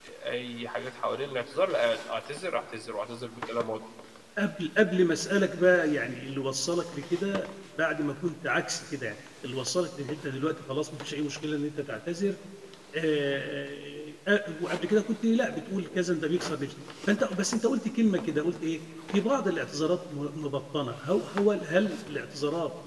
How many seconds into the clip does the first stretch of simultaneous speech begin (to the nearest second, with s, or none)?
none